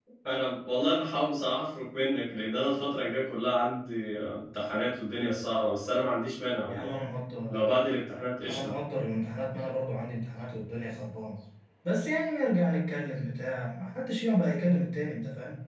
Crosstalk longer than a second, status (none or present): none